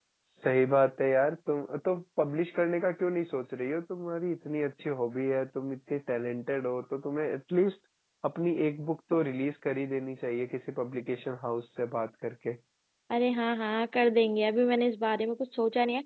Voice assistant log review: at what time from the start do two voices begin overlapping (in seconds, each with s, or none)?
none